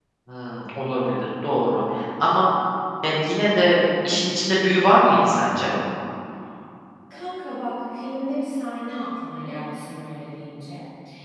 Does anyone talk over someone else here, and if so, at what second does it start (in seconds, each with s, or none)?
none